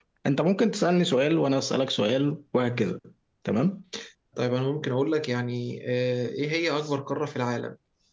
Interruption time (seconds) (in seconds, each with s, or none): none